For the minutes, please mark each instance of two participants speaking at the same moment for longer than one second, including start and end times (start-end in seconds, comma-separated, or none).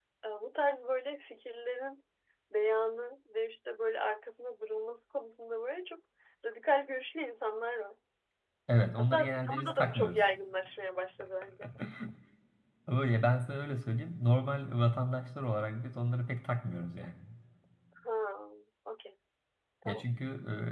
9.0-10.2